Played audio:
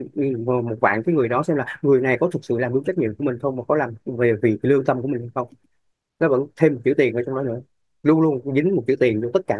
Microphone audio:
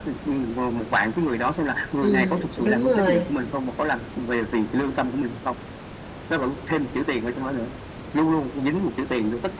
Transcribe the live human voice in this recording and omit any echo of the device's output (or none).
ừ, đúng rồi